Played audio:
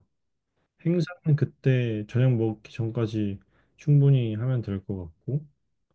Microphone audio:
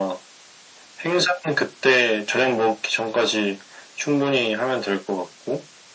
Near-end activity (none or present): none